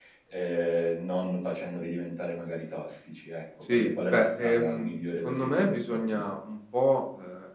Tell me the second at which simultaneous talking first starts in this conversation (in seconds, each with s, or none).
3.6 s